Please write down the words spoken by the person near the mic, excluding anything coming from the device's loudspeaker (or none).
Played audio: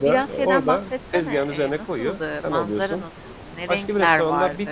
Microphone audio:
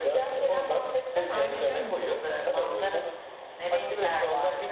Harikaymış.